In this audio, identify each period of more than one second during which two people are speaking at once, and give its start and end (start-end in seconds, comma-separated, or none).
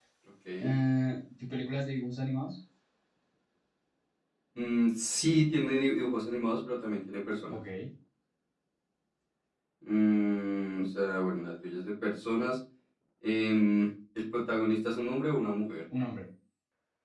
none